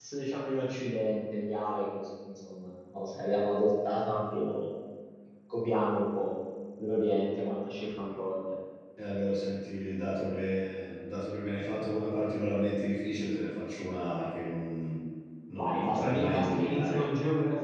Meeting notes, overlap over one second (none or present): present